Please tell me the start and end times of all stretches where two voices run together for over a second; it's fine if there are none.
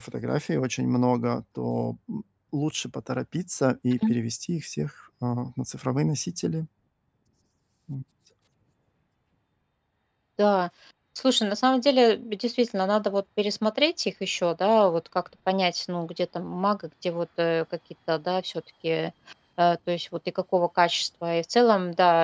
none

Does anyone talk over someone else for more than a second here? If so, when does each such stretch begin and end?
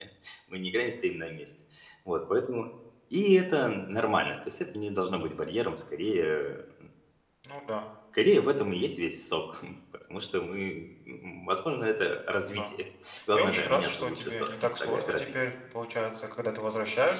13.3-15.3

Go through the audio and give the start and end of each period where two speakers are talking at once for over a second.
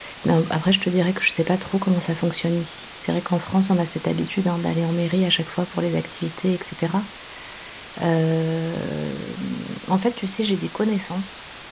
none

